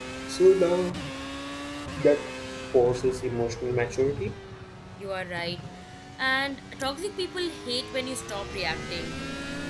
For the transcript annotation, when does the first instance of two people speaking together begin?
none

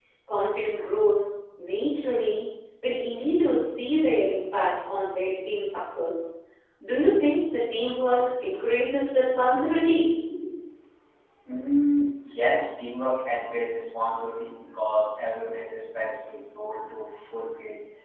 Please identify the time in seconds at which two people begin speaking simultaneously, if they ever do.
none

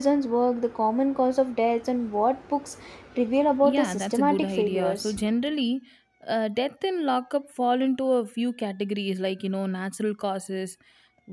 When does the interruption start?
3.6 s

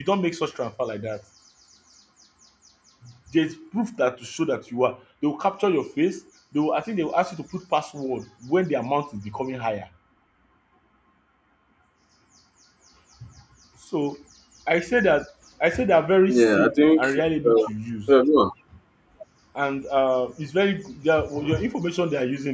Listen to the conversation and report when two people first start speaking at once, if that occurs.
16.3 s

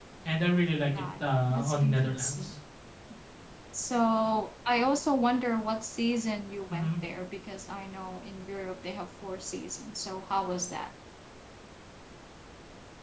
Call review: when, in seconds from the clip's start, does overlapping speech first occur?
1.0 s

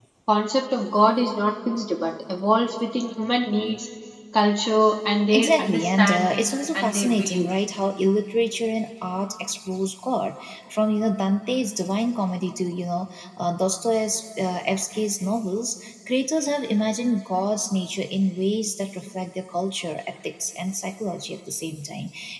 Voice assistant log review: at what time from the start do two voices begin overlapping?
5.3 s

